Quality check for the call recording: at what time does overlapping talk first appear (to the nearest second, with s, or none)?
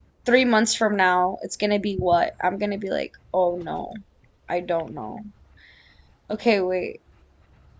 none